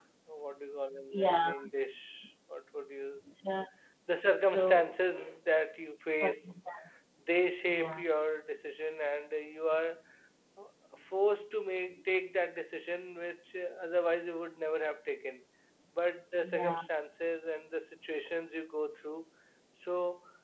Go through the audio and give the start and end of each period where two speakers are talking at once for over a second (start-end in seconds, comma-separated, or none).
none